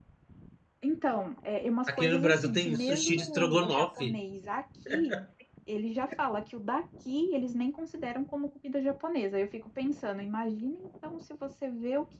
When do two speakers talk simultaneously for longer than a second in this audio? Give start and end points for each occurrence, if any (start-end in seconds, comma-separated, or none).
1.9-4.2